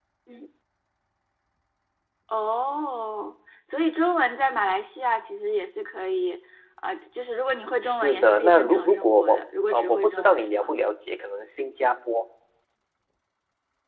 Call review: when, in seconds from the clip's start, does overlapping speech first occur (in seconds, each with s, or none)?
7.8 s